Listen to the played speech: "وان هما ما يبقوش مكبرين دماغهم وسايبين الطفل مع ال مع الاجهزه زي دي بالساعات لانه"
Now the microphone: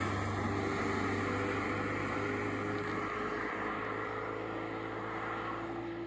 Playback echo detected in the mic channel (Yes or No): No